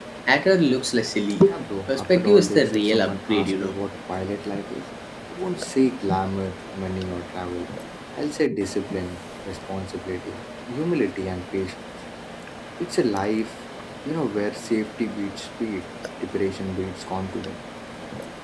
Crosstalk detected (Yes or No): Yes